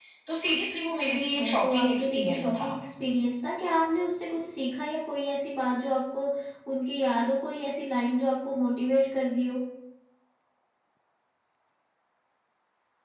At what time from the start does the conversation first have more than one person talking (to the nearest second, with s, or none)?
1 s